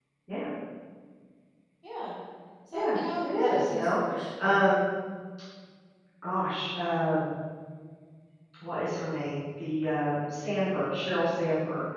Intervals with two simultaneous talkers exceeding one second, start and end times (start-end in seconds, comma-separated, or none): 2.7-4.0